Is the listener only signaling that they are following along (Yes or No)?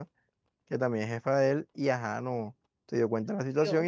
Yes